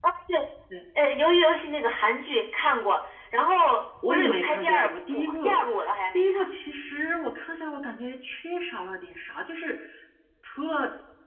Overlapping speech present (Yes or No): Yes